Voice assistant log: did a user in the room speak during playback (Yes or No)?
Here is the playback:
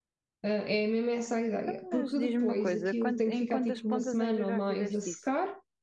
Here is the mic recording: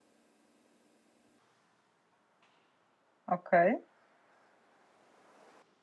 Yes